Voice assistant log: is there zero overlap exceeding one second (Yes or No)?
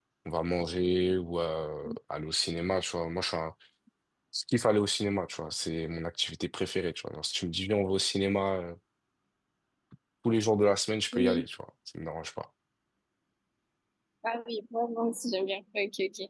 Yes